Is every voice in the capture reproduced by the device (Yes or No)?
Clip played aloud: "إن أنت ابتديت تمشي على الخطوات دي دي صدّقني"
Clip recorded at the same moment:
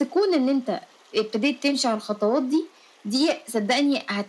Yes